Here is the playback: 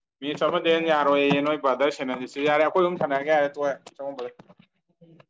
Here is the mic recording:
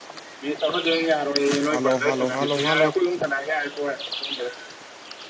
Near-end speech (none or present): present